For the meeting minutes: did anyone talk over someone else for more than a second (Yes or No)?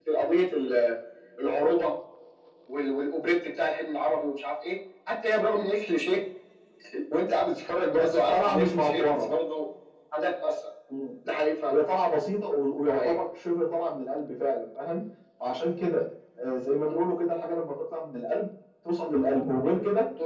Yes